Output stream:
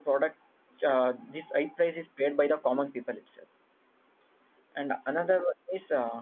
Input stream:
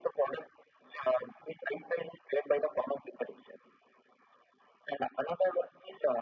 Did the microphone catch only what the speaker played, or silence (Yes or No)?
Yes